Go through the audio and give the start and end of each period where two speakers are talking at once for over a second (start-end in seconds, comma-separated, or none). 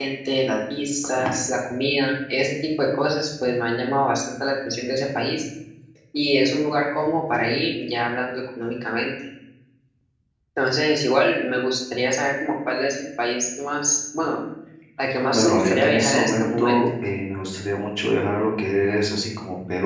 15.3-16.8